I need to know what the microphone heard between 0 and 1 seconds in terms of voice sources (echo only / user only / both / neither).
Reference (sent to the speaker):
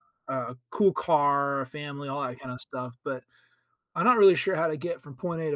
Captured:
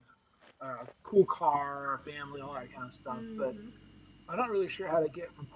echo only